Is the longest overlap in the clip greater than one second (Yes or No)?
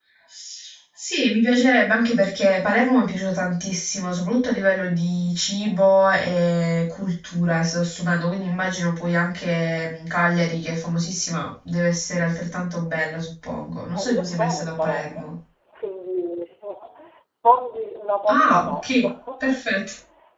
Yes